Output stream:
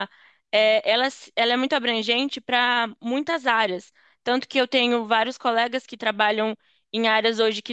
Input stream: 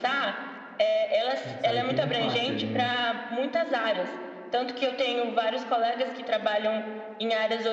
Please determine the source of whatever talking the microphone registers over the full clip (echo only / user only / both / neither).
both